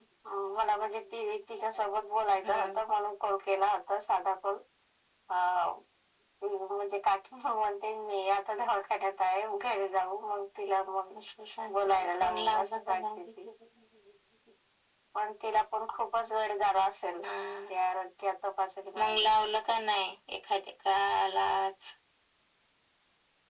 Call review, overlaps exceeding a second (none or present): present